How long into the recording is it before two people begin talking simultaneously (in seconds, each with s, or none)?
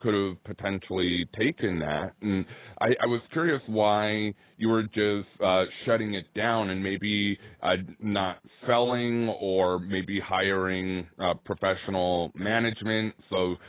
none